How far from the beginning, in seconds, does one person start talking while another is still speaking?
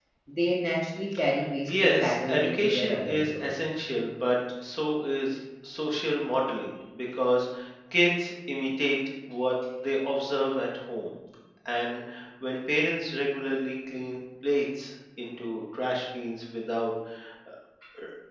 1.7 s

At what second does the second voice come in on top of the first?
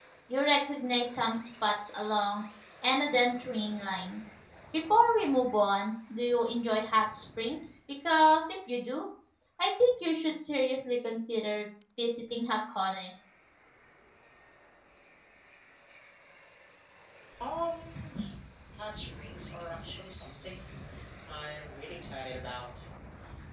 none

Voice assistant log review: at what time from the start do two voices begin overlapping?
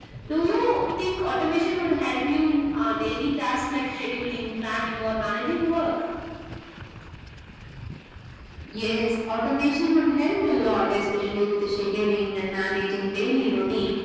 none

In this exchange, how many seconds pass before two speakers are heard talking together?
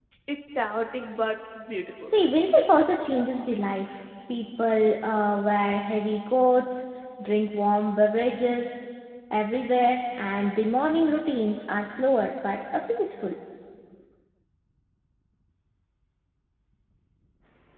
none

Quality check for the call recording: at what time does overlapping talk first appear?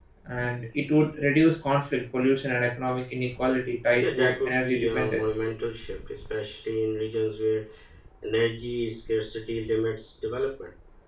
3.9 s

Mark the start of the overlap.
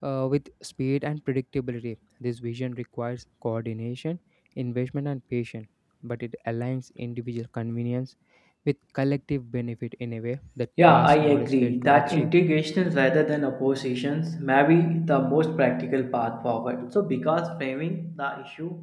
10.8 s

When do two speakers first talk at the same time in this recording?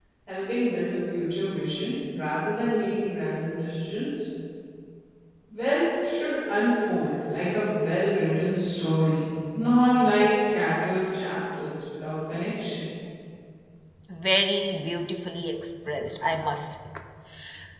none

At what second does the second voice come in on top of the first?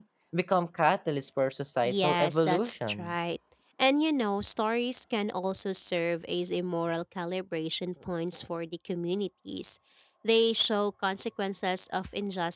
1.8 s

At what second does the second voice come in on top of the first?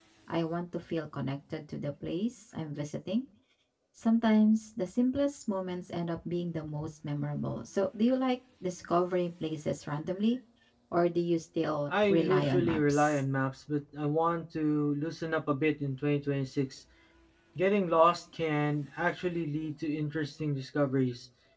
11.9 s

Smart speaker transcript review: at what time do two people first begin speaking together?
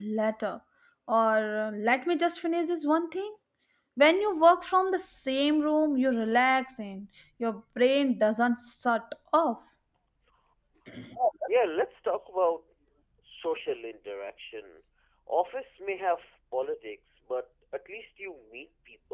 none

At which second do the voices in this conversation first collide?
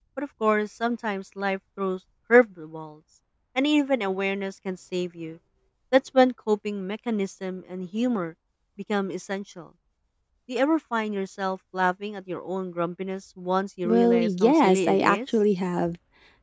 13.8 s

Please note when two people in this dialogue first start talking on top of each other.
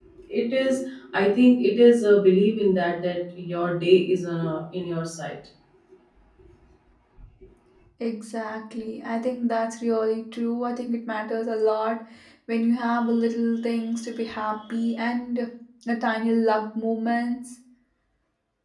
none

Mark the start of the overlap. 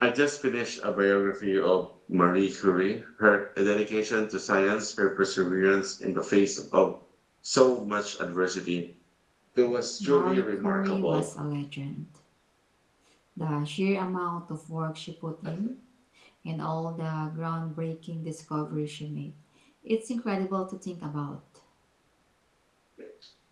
10.0 s

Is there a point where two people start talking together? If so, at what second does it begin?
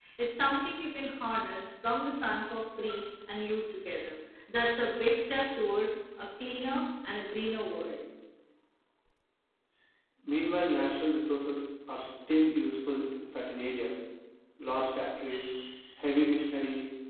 none

